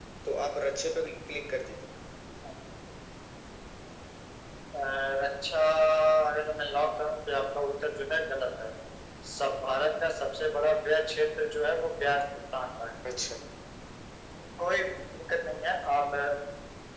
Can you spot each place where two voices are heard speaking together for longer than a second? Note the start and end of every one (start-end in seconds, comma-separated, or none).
none